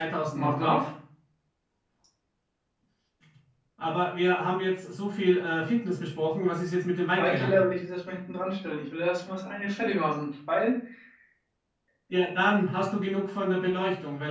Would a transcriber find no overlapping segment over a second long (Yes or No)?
Yes